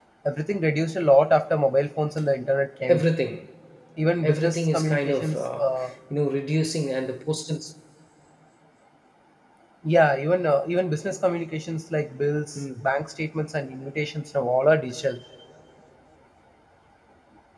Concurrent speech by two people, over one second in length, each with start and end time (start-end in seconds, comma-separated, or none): 4.2-5.6